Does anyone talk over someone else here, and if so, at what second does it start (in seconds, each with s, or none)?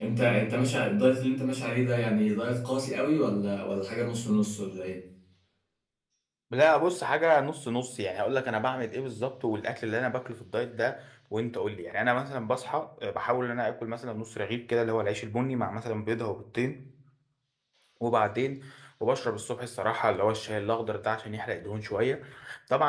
none